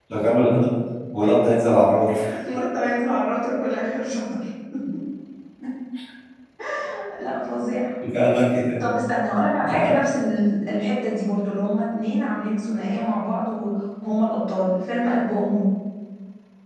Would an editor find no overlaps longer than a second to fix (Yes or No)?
Yes